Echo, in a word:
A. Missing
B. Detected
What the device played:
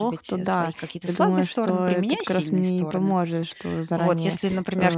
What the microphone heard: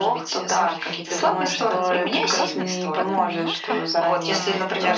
B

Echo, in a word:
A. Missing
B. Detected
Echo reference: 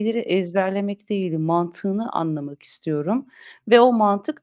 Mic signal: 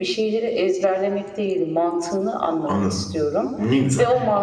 B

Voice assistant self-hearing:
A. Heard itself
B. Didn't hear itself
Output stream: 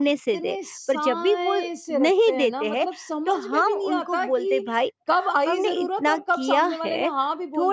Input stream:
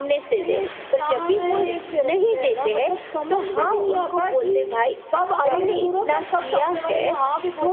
A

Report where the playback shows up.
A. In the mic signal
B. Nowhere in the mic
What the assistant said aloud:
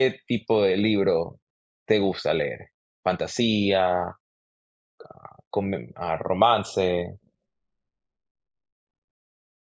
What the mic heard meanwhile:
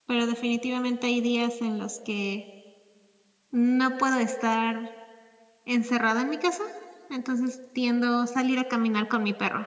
B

